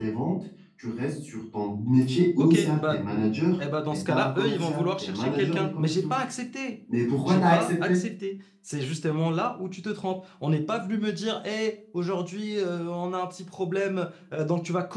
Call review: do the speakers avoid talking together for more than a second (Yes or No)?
No